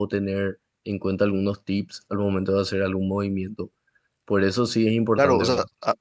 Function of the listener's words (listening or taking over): taking over